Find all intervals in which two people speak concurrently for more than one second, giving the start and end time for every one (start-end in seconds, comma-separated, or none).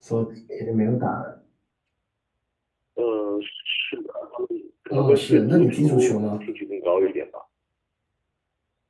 4.9-6.2